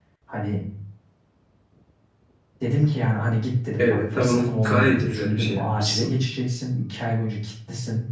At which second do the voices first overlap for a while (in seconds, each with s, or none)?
3.8 s